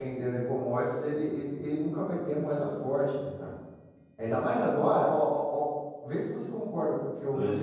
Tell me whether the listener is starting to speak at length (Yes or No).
No